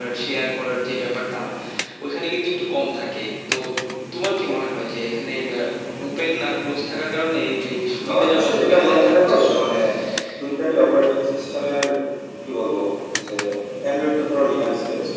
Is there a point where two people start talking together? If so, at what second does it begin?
8.1 s

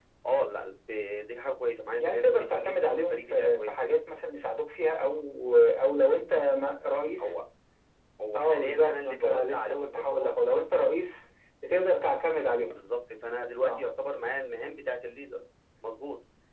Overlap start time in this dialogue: 2.0 s

